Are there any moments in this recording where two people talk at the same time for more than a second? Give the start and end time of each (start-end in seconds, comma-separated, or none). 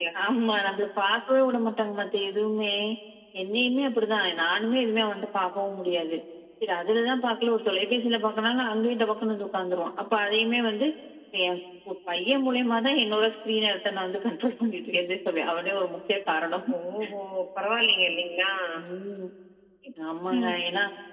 none